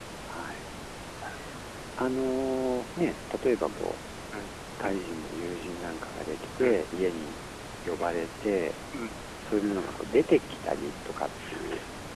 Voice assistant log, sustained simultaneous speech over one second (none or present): none